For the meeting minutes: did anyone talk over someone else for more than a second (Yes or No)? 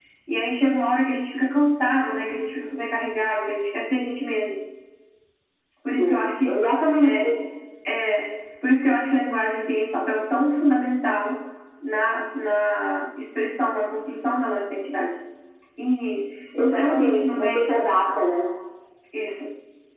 Yes